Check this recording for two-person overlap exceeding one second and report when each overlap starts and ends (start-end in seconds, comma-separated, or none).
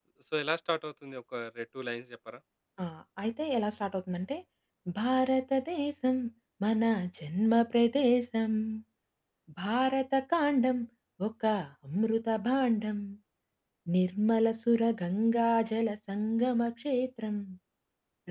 none